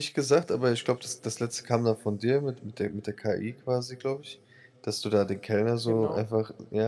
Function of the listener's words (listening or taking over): listening